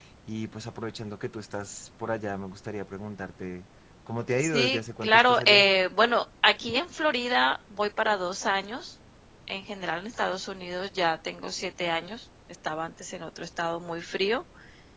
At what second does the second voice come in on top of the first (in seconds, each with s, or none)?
4.4 s